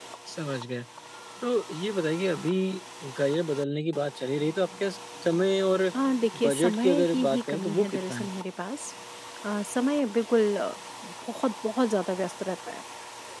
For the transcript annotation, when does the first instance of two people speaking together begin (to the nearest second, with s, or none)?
6 s